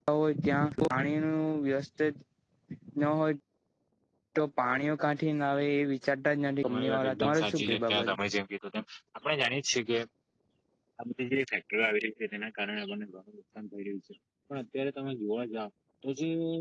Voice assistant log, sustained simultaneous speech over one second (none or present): present